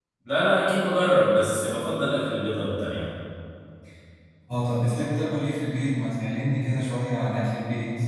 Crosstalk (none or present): none